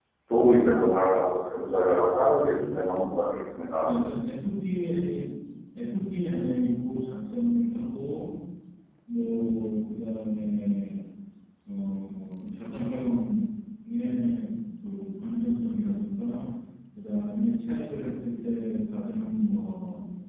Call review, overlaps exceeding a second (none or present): none